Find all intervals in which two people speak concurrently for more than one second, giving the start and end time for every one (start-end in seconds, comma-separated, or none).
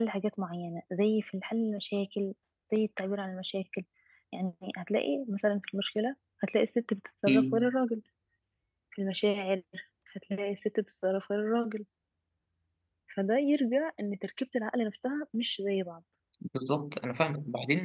none